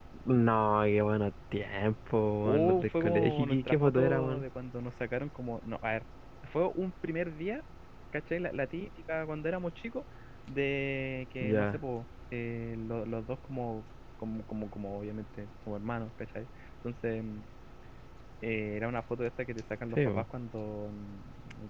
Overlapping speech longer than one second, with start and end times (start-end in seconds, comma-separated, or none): 2.4-4.4